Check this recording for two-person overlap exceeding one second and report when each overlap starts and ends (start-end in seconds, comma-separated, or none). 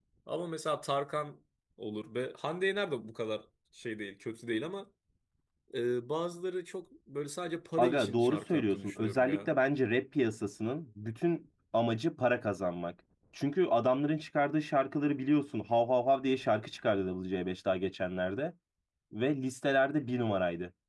7.8-9.5